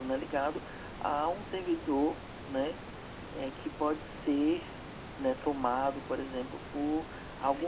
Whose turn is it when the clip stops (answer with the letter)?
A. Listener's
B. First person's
B